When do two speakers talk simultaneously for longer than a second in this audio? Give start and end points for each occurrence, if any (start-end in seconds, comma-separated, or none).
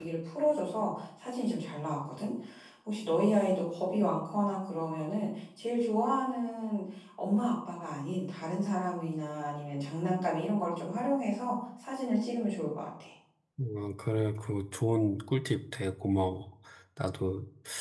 none